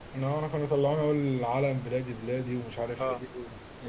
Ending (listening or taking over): taking over